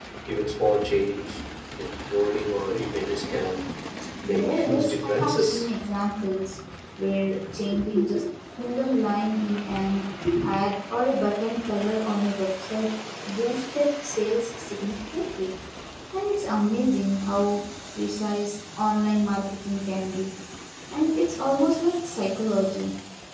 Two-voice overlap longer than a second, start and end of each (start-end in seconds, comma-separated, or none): 4.4-5.6